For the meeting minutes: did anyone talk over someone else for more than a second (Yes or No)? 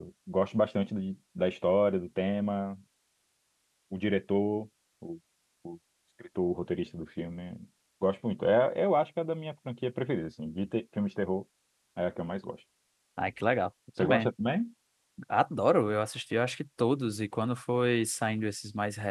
No